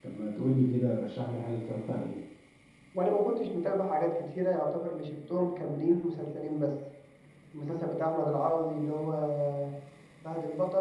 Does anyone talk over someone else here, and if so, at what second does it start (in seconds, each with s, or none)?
none